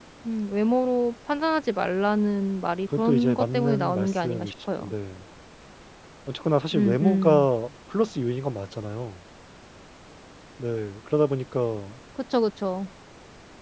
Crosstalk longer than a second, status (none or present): present